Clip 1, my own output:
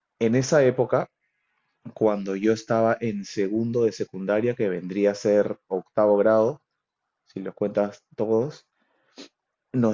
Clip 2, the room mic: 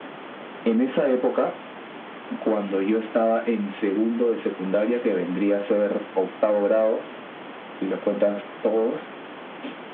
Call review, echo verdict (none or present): present